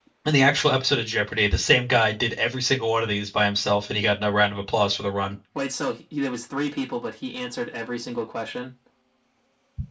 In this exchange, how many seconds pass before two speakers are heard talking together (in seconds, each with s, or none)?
none